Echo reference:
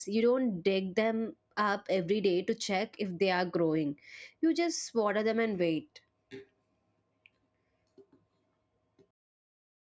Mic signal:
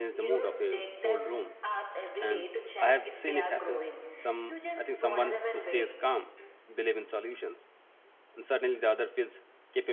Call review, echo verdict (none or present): present